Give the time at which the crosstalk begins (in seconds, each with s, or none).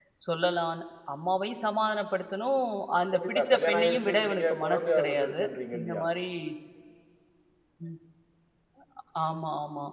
3.1 s